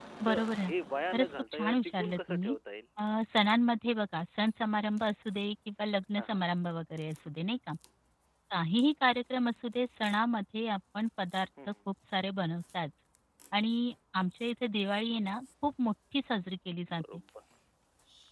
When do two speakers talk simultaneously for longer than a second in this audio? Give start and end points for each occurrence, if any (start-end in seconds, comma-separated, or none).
1.1-2.5